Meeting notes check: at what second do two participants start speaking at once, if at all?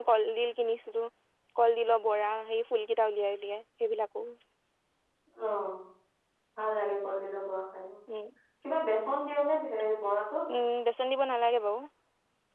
none

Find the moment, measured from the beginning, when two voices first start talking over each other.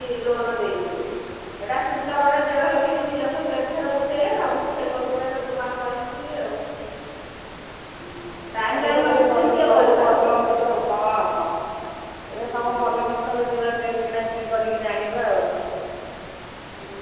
9 s

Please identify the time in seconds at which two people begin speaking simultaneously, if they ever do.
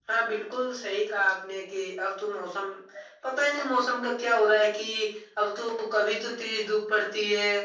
none

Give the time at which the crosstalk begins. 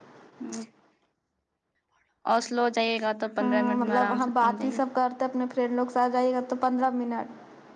3 s

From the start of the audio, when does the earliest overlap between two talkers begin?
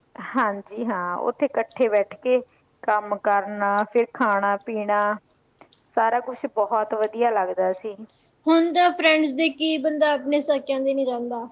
none

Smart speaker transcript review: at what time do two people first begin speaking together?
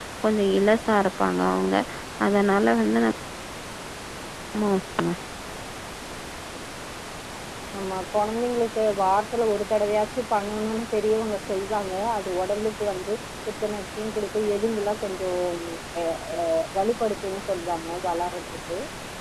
none

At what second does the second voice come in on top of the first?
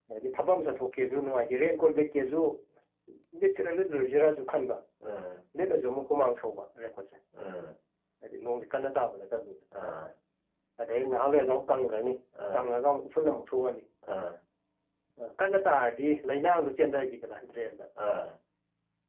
none

